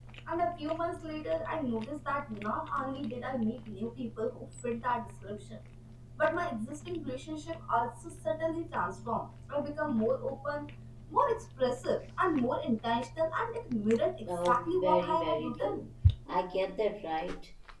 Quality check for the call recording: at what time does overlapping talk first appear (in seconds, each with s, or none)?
14.3 s